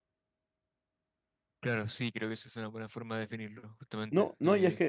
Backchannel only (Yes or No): No